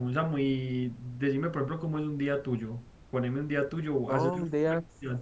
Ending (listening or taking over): taking over